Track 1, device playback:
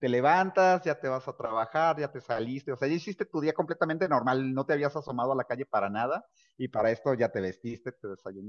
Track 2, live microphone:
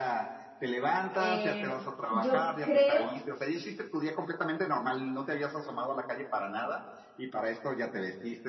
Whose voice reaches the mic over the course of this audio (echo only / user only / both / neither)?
both